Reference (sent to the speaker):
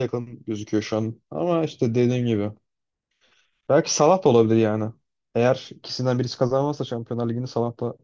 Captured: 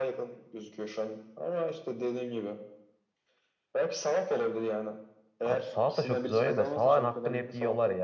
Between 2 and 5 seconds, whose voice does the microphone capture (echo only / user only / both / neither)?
echo only